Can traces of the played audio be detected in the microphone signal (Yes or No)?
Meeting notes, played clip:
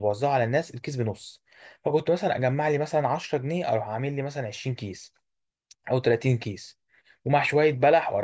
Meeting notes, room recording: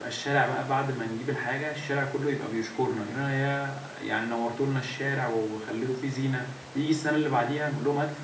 No